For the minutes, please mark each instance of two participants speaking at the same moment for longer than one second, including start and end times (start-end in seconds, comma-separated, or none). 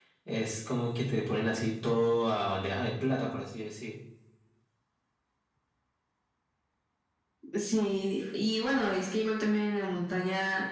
none